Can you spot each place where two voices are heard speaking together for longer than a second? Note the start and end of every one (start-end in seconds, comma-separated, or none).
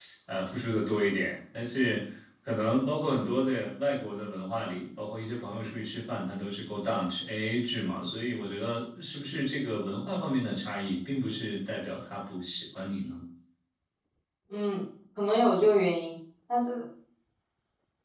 none